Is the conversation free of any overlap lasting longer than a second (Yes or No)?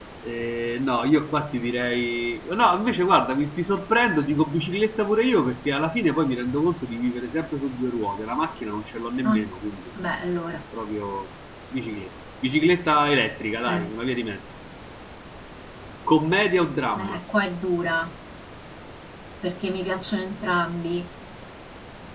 Yes